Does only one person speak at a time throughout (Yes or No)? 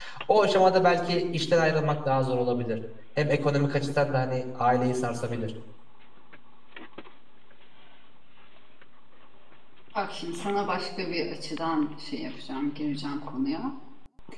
Yes